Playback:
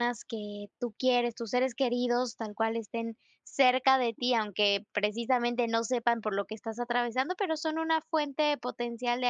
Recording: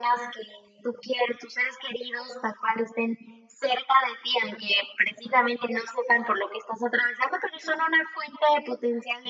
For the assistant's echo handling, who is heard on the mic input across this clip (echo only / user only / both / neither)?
echo only